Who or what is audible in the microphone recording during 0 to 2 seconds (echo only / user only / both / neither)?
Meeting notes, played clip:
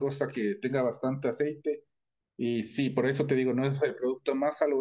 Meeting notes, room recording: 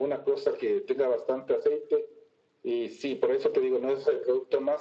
echo only